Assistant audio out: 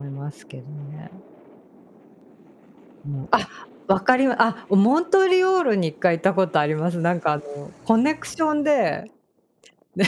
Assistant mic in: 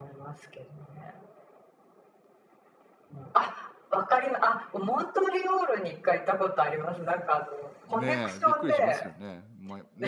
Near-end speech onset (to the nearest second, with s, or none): 8 s